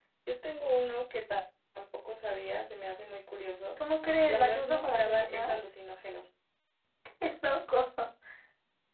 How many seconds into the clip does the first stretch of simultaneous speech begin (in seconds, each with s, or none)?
4.3 s